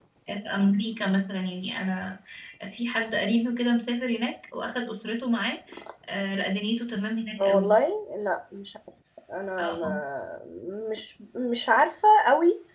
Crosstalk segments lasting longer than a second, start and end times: none

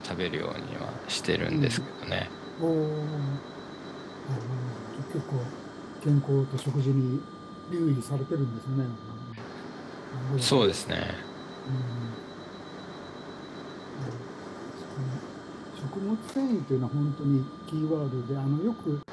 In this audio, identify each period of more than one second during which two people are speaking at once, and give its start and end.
none

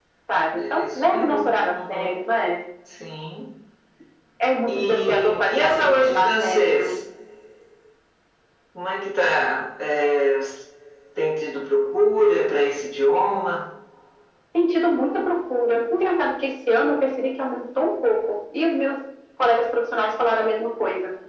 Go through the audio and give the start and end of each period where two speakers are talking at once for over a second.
0.6-2.2, 4.7-7.0

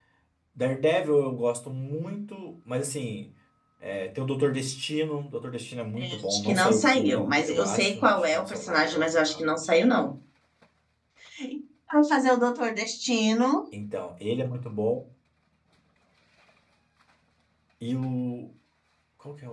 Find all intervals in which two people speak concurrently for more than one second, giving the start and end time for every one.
6.0-9.5

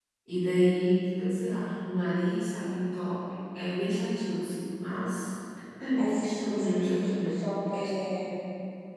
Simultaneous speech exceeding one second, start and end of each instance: 6.2-7.5

